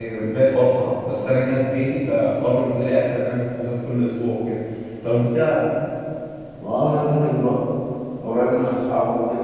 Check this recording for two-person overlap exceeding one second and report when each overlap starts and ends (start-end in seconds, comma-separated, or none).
none